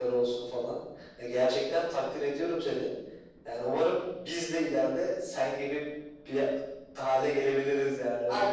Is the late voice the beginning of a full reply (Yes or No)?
Yes